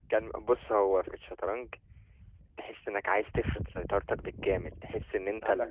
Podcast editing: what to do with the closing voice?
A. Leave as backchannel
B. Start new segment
A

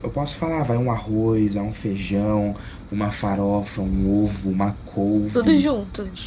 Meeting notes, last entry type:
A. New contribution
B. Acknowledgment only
B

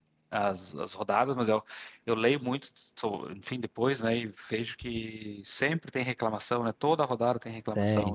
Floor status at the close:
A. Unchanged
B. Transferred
B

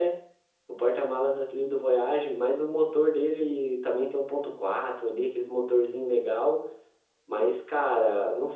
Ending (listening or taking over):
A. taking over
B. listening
B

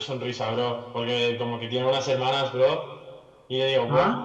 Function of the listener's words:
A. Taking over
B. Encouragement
B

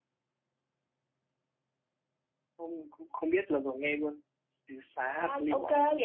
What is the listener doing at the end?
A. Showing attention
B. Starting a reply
B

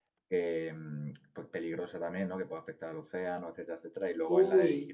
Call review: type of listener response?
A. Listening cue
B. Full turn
A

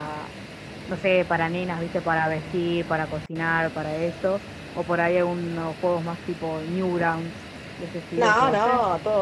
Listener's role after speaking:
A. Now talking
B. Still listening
A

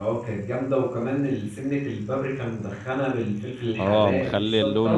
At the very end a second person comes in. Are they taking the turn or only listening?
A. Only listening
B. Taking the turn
B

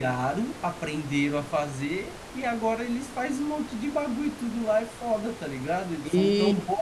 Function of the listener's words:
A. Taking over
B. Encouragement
B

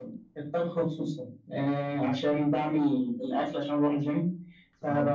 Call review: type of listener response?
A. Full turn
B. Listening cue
B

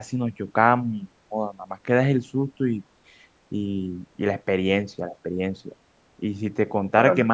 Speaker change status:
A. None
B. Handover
A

